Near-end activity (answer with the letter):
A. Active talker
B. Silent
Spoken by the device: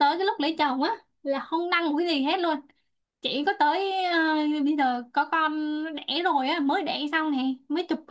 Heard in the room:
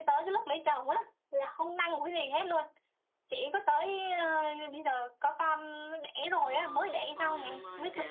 A